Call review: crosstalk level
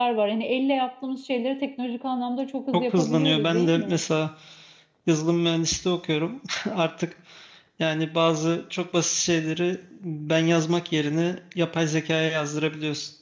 present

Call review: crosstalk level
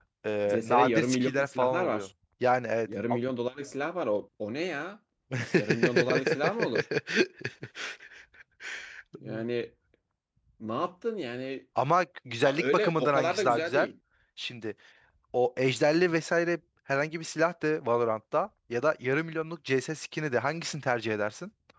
present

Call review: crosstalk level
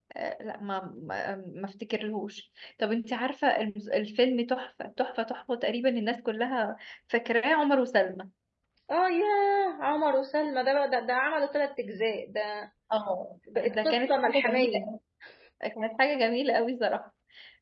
present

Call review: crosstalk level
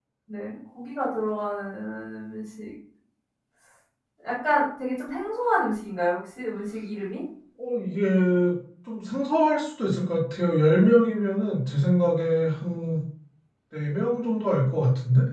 none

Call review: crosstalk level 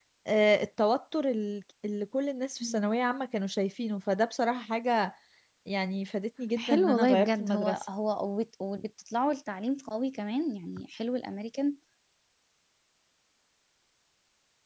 present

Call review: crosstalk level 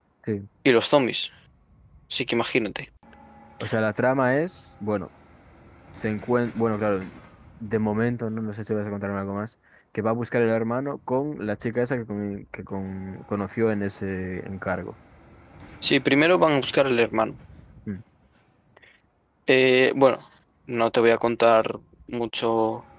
none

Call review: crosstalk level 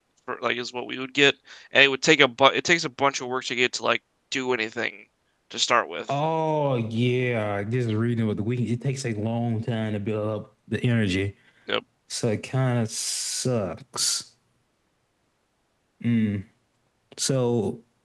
none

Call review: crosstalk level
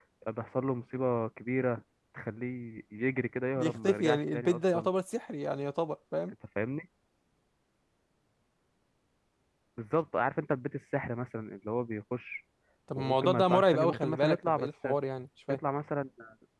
present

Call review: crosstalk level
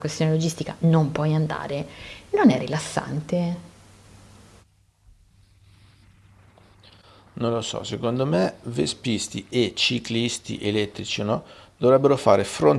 none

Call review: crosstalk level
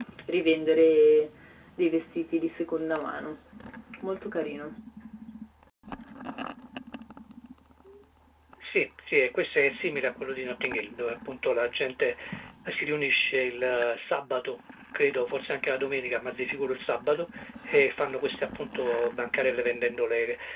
none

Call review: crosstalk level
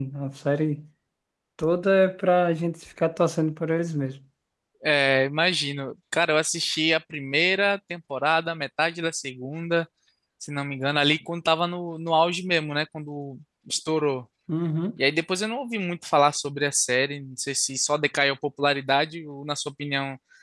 none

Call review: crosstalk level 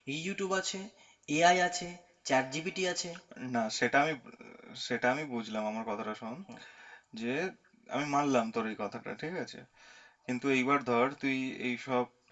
none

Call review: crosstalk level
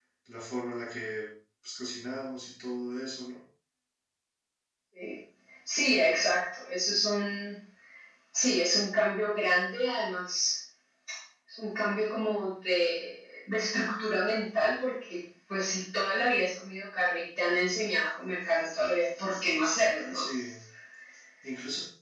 none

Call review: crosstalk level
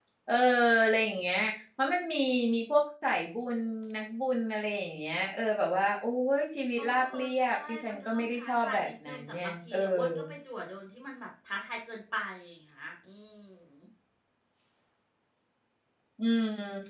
present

